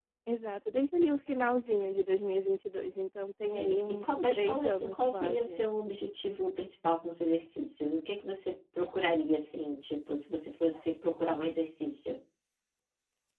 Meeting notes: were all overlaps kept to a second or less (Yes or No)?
No